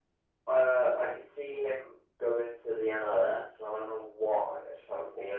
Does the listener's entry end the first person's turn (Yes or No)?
No